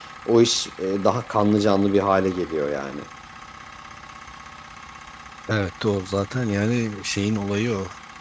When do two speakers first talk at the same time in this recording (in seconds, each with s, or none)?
none